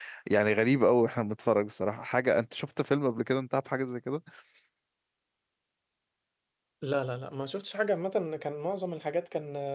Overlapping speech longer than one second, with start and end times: none

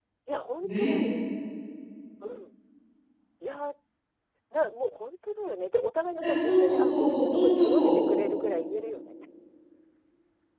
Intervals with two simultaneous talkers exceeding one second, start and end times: 6.2-8.0

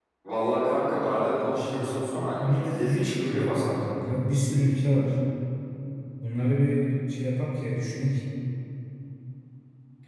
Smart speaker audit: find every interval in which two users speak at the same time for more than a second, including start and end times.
1.5-3.8

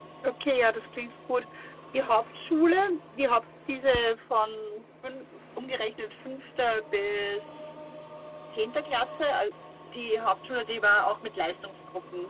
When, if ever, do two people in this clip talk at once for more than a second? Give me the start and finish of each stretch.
none

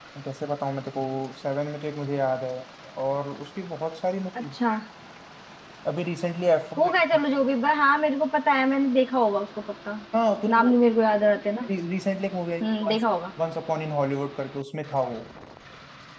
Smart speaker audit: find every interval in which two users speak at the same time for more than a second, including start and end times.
none

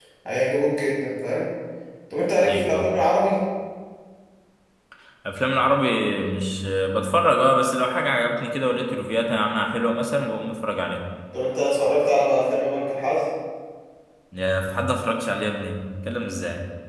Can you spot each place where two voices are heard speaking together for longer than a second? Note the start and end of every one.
none

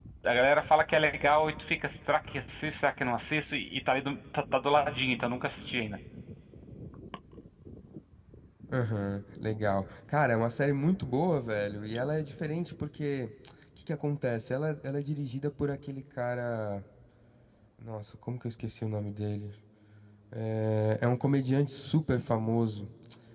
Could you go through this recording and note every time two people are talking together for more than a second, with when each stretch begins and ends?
none

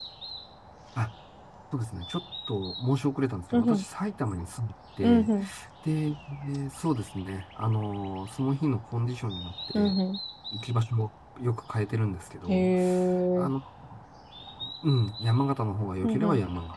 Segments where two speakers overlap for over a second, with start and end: none

